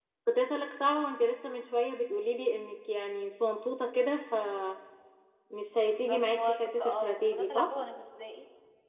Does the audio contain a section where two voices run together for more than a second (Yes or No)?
Yes